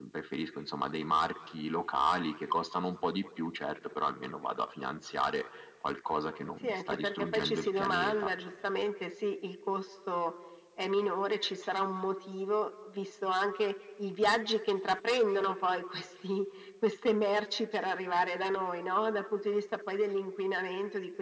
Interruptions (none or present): present